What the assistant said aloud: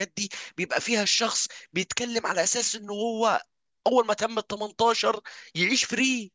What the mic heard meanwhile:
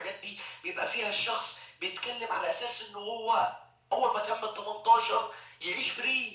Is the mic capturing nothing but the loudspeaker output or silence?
Yes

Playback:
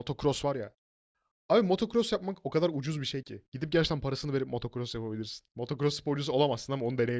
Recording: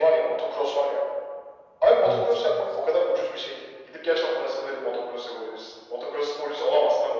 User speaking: Yes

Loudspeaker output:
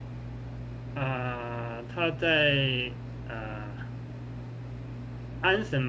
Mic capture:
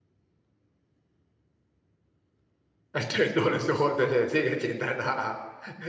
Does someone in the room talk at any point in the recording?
Yes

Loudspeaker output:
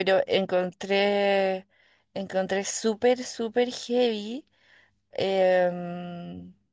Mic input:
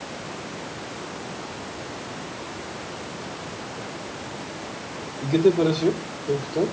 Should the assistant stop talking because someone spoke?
Yes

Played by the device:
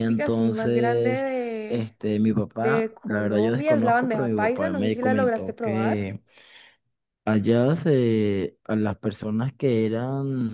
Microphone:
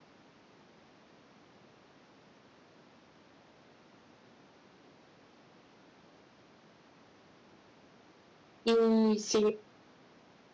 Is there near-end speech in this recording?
Yes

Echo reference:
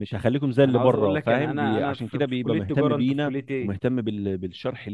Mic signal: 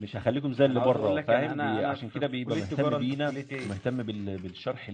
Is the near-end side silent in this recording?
Yes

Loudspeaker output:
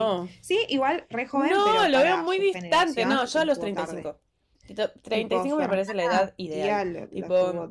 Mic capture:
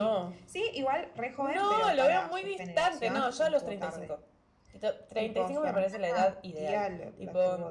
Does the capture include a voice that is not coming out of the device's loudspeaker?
No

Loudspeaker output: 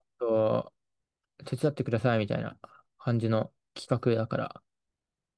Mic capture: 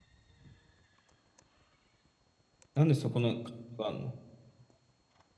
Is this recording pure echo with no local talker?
No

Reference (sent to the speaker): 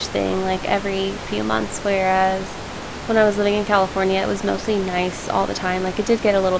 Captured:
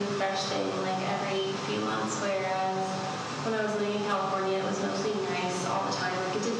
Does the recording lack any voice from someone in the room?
Yes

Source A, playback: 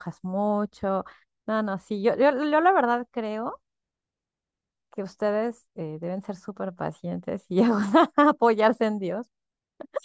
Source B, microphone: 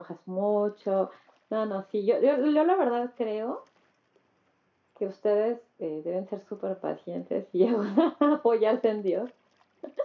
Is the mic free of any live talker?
Yes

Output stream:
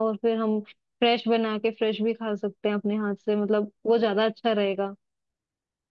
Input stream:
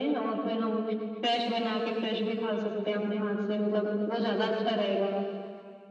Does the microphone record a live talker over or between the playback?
No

